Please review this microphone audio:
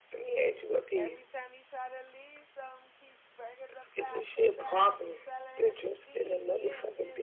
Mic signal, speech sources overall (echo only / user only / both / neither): both